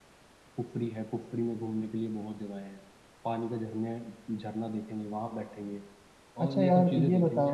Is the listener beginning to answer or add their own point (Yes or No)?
Yes